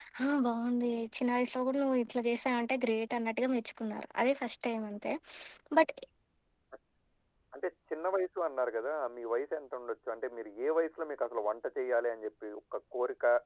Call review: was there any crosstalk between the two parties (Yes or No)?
No